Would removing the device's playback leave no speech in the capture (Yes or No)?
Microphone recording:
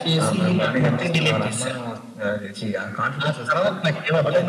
Yes